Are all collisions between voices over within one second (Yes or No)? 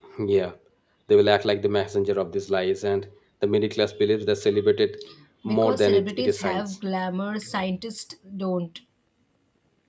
No